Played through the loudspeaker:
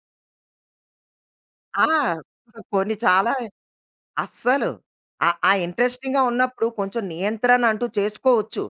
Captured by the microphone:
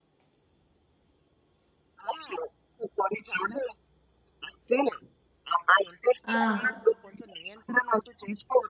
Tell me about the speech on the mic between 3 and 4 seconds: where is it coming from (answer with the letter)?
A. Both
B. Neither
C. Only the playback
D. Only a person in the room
C